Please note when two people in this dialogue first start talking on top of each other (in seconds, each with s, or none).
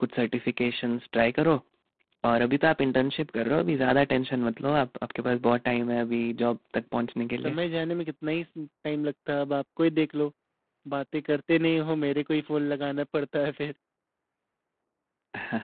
none